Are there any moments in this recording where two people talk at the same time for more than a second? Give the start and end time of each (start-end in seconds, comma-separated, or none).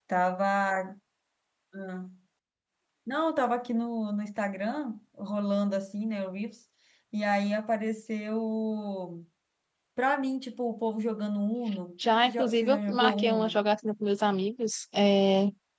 12.3-13.6